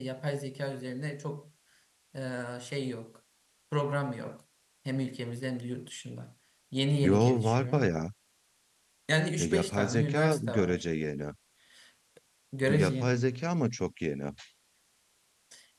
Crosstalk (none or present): present